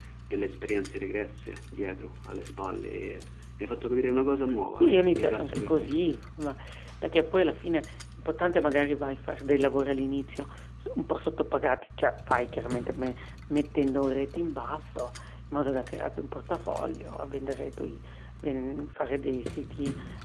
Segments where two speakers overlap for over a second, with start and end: 4.8-6.2

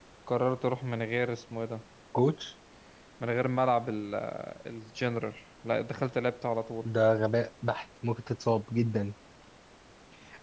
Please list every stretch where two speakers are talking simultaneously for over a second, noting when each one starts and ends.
none

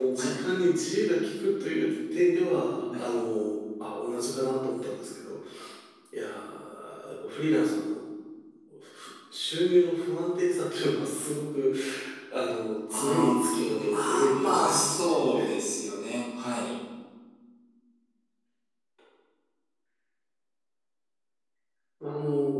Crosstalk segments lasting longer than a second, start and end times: 12.9-15.2

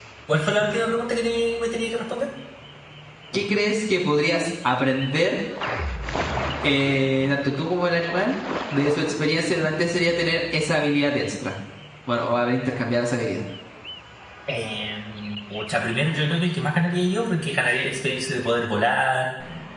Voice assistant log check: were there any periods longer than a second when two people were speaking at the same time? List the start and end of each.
none

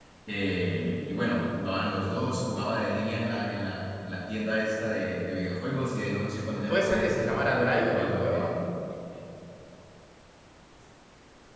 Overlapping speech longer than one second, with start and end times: 6.7-8.6

